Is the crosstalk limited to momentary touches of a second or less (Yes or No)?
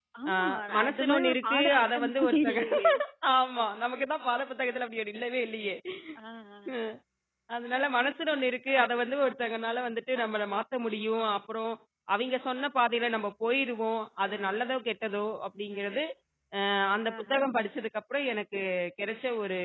No